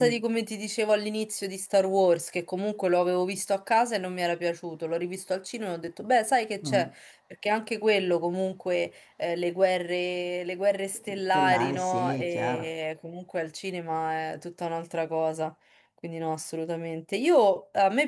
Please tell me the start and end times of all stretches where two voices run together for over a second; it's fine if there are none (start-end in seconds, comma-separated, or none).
11.3-12.7